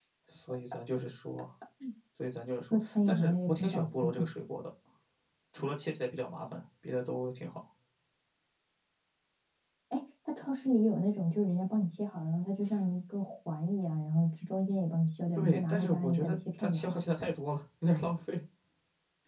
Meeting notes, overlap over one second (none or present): present